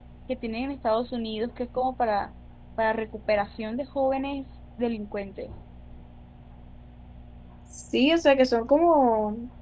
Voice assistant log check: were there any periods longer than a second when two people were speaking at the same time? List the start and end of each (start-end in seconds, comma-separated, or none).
none